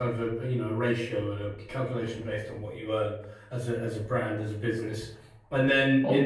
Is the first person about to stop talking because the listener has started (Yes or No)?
Yes